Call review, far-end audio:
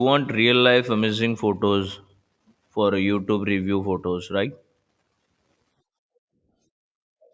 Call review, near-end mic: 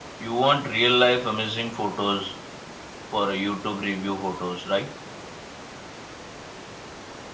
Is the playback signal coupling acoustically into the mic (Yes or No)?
Yes